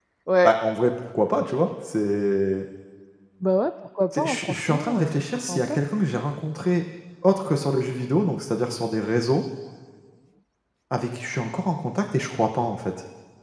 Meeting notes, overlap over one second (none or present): present